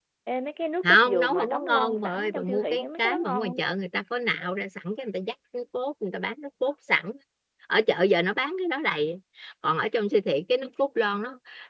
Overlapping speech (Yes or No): Yes